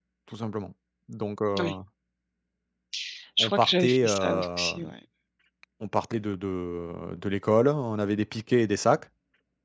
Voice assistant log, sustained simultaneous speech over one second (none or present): present